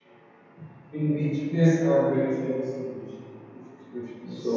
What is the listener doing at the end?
taking over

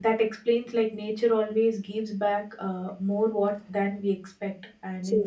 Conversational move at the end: listening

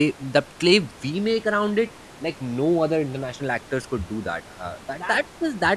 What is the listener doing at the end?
listening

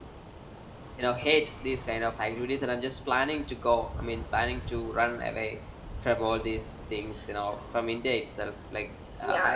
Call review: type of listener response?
taking over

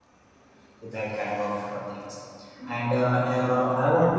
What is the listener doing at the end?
listening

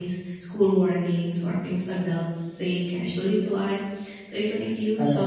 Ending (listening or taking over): listening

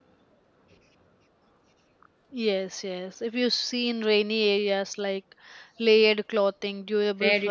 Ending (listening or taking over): taking over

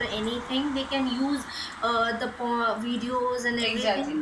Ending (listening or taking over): listening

